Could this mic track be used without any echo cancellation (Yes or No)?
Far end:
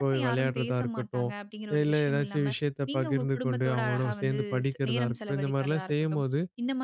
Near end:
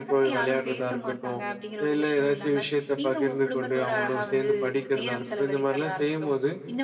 No